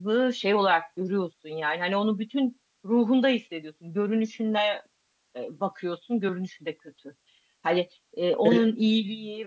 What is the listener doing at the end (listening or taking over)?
listening